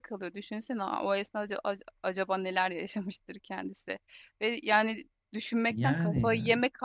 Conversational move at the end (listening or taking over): listening